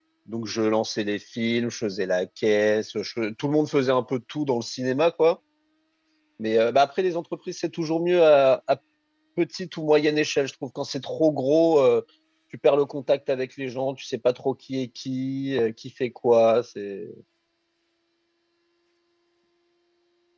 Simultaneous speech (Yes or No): No